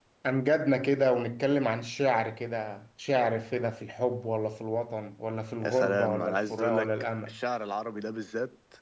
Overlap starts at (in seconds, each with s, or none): 5.6 s